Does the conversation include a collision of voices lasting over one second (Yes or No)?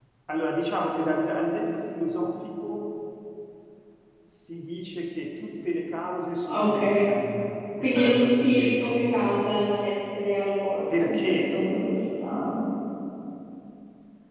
Yes